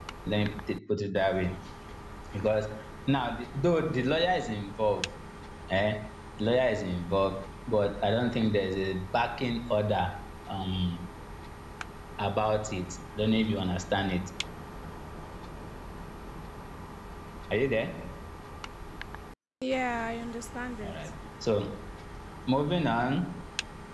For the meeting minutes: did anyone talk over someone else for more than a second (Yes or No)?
No